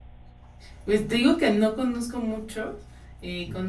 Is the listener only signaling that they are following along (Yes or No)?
Yes